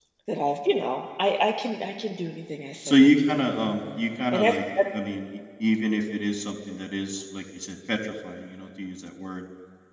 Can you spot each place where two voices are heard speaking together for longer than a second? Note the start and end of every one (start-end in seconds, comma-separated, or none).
none